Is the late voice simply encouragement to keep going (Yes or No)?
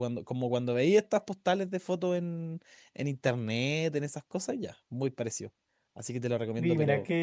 No